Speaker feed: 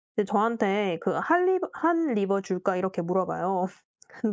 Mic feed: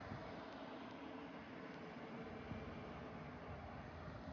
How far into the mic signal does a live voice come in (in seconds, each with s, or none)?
none